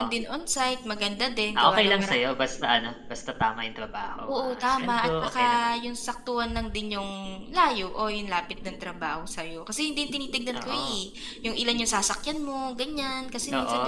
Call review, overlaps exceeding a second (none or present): present